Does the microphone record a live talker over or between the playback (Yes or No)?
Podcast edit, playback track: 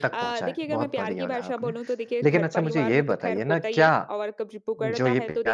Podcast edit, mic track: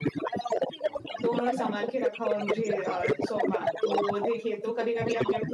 Yes